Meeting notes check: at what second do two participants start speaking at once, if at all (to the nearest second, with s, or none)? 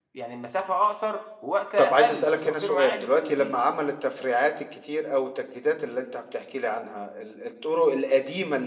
2 s